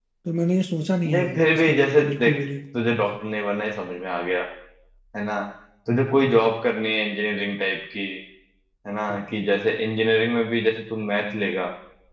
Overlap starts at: 1.1 s

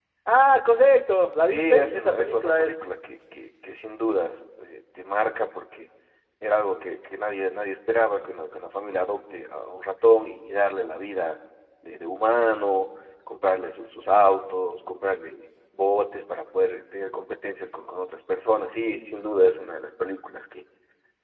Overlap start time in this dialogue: 1.4 s

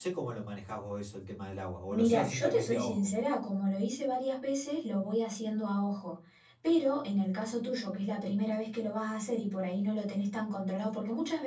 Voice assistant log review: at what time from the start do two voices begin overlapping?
1.9 s

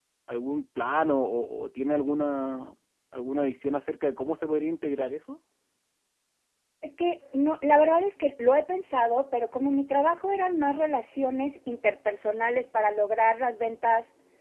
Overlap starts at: none

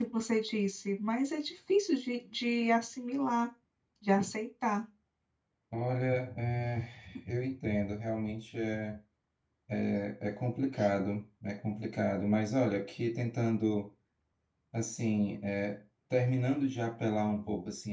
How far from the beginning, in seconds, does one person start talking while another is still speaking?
none

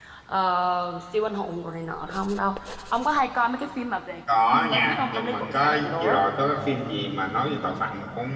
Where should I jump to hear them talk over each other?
4.3 s

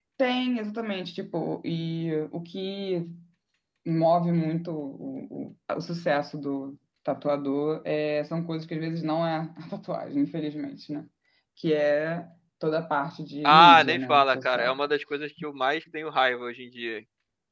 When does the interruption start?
13.4 s

